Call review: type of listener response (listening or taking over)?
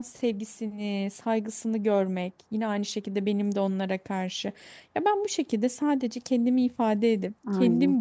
listening